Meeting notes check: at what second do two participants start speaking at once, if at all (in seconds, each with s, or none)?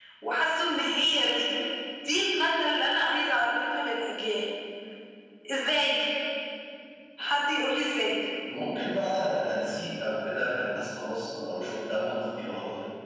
none